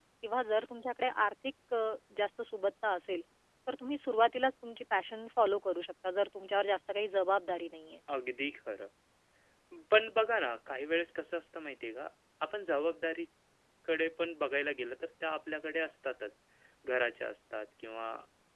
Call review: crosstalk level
none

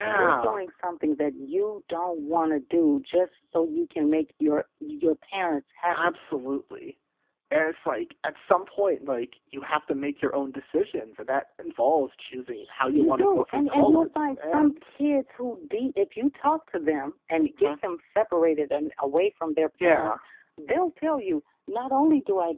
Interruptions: present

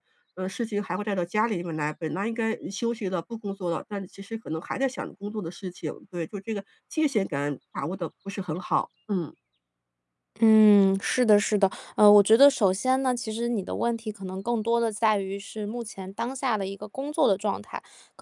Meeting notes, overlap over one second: none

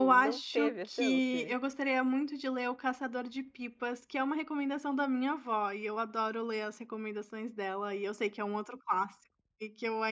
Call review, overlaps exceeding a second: present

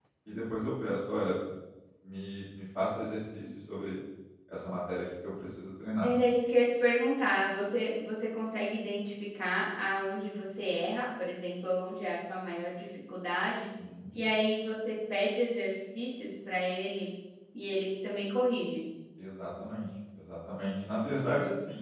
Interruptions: none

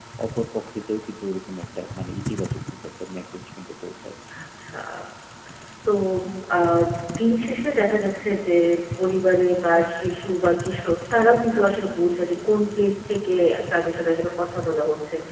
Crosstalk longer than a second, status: none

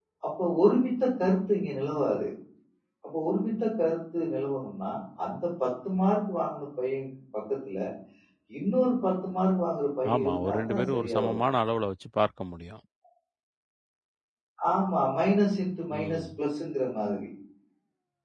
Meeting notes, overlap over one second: present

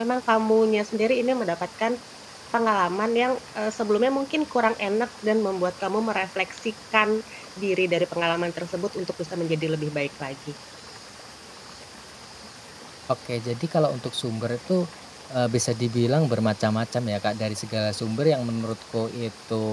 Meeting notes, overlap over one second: none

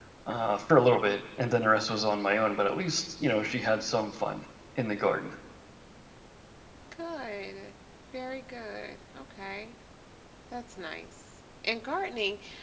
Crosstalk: none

